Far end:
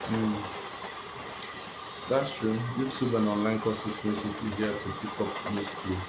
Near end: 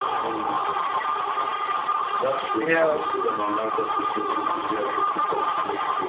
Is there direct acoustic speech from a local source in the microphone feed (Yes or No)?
Yes